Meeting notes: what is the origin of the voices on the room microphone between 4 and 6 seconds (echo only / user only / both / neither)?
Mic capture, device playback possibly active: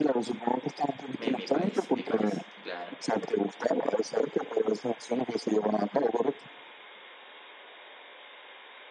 echo only